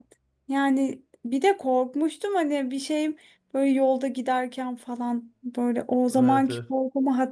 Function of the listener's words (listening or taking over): listening